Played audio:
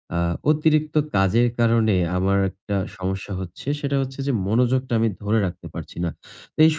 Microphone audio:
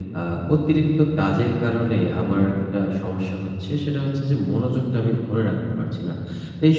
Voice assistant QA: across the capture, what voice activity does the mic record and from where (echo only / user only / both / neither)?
echo only